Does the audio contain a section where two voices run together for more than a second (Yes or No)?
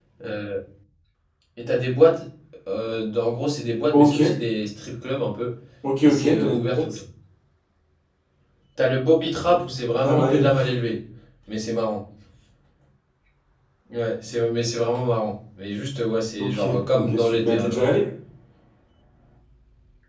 Yes